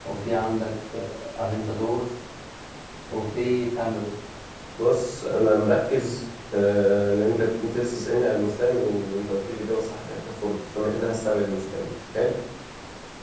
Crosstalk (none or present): none